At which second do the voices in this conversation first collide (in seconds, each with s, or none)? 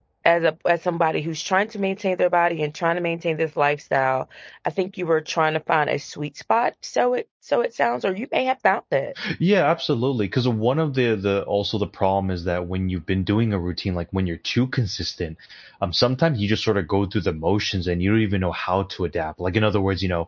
none